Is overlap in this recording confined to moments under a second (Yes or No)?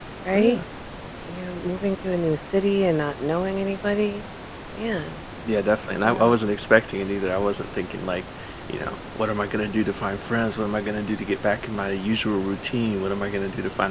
Yes